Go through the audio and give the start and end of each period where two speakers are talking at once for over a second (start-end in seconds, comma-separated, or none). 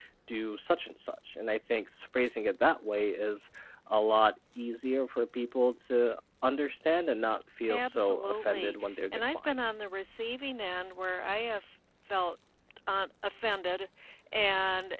7.7-9.5